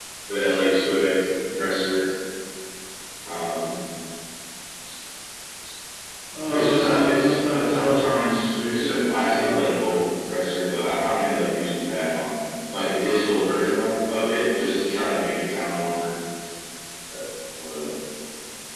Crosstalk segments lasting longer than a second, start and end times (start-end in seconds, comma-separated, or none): 6.5-8.9